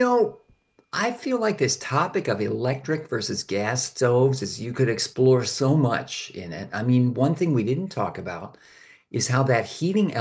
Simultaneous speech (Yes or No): No